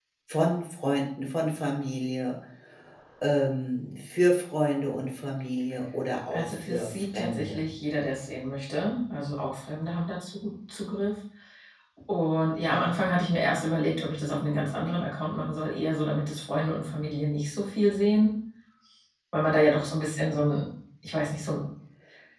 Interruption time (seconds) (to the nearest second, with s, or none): 6 s